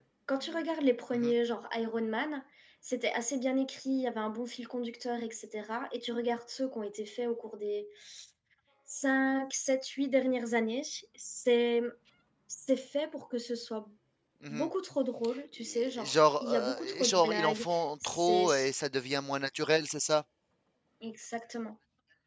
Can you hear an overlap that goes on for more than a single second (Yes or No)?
Yes